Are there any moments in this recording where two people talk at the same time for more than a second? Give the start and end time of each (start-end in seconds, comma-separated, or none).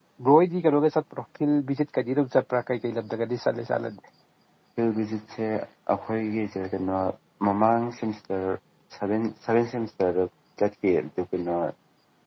none